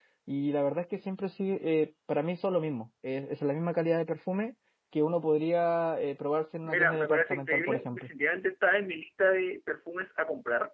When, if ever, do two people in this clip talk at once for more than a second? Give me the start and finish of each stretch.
6.6-8.1

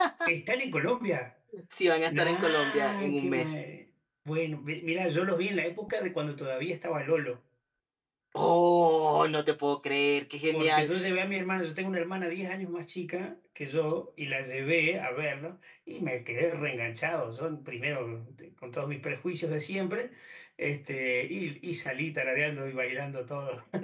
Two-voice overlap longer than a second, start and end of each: 2.1-3.5

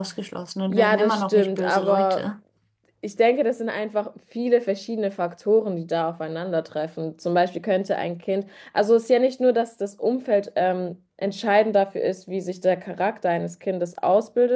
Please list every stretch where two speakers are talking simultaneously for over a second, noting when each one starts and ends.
0.7-2.2

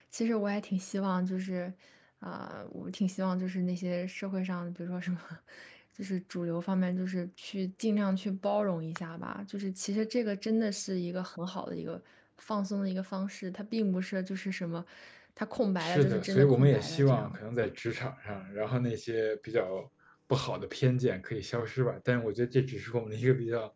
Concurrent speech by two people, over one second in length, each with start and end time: 15.8-17.4

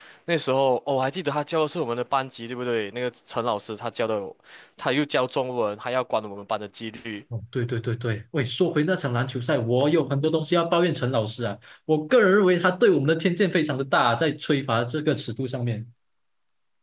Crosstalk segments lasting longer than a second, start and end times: none

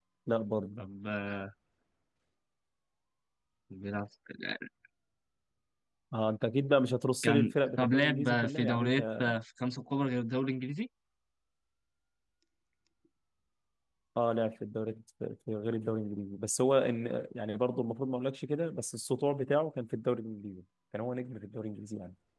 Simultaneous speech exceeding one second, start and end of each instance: 7.2-9.2

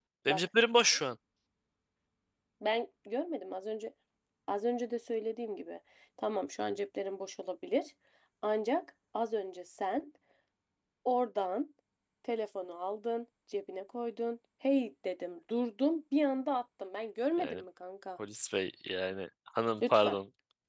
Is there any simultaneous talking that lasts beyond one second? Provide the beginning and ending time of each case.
none

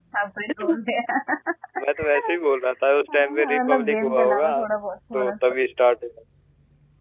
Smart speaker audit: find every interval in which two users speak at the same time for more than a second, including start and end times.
3.1-4.5

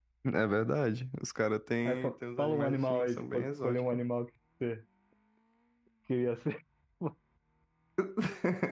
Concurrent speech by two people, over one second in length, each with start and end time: 1.9-4.0

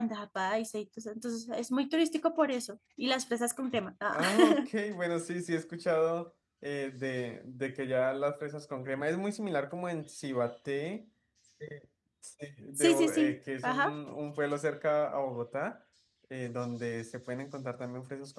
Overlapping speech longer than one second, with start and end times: 12.7-13.9

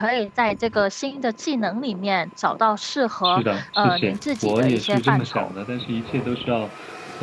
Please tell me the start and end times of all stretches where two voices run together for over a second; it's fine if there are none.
3.2-5.5

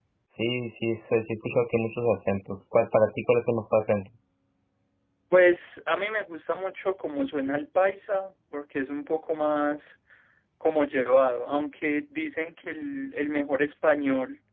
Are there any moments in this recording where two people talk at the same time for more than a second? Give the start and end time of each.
none

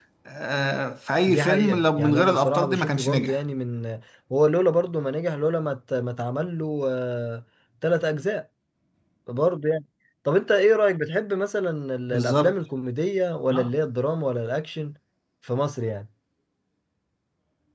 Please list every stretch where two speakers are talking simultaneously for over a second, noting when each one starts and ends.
1.3-3.4

